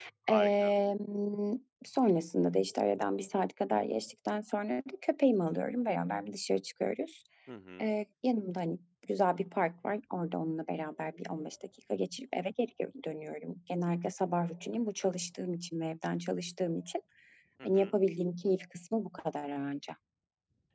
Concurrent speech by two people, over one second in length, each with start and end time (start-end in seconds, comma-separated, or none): none